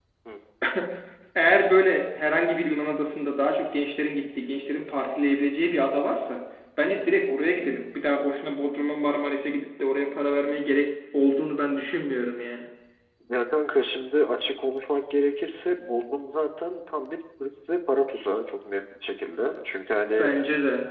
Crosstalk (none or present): none